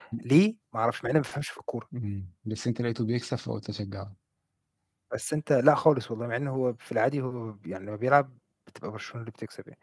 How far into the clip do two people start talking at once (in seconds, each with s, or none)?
none